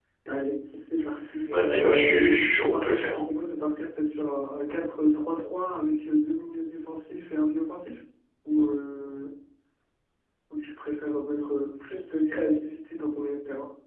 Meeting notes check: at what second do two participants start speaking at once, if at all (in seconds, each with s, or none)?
1.5 s